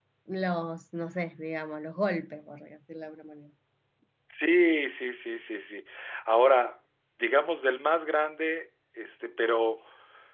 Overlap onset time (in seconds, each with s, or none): none